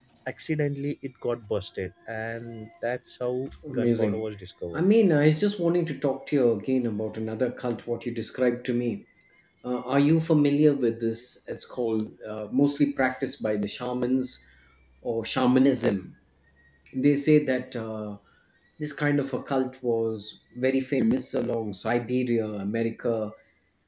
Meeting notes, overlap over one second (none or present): none